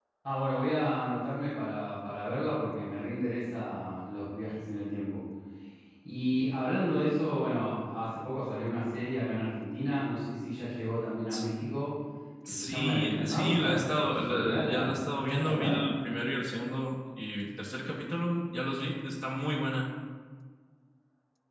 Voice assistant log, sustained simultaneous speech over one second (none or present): present